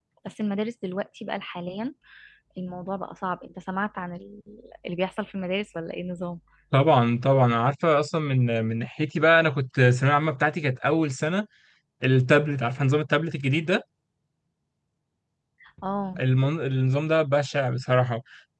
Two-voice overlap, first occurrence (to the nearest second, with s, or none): none